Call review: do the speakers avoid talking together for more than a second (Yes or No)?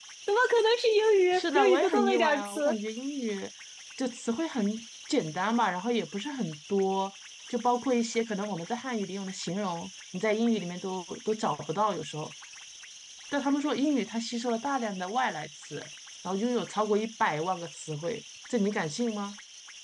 No